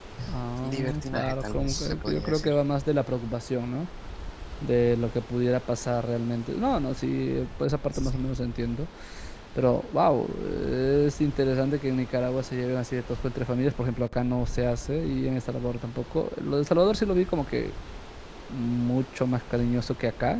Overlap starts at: 0.6 s

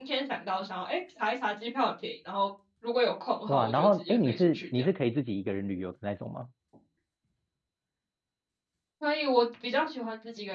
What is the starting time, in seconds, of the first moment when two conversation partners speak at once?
3.5 s

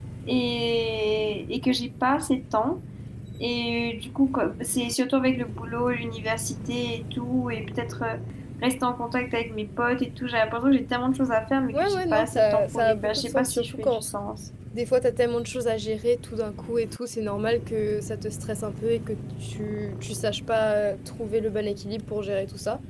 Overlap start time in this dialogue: 11.7 s

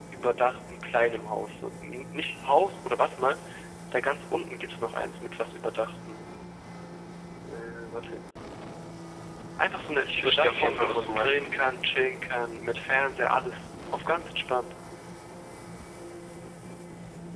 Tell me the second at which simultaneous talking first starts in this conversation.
10.1 s

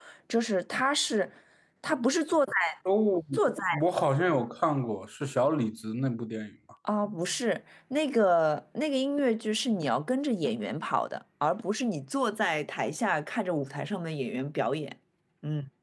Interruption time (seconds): none

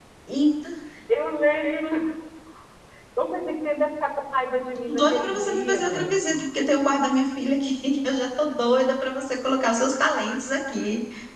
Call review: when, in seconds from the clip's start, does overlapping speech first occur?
4.9 s

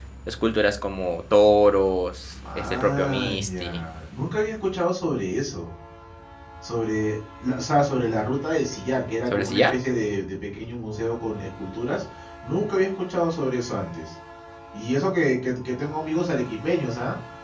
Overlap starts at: 2.6 s

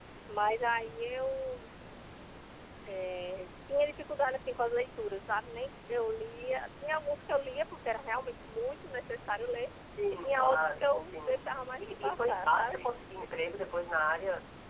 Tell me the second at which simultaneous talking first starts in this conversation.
10.0 s

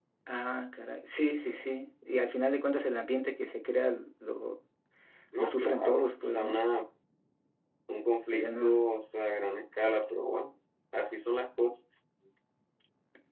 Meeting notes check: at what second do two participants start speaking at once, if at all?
5.4 s

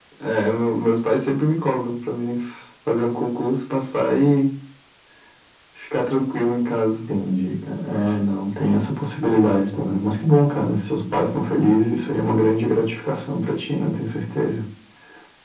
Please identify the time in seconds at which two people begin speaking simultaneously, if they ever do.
none

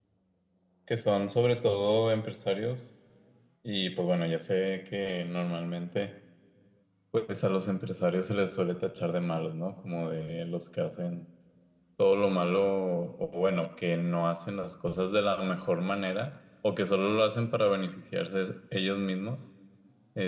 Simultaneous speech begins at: none

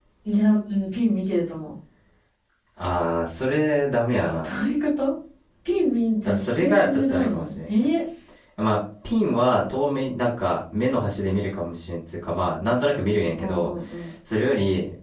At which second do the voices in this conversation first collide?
6.2 s

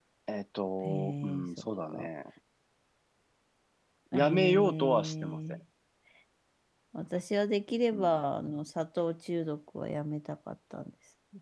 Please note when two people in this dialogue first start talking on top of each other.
0.8 s

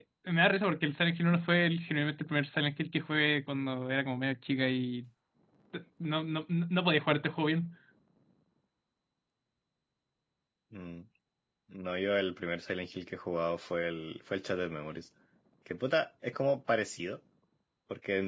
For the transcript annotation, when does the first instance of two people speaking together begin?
none

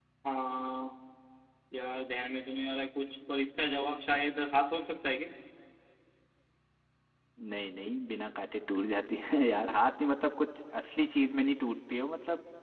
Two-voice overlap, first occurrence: none

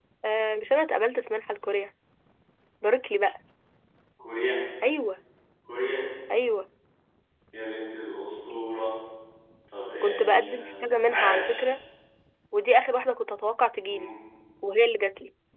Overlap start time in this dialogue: 10.0 s

